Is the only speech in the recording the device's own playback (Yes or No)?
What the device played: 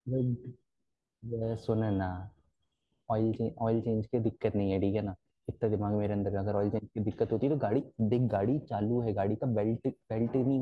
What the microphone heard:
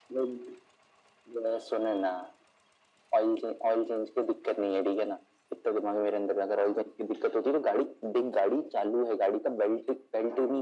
Yes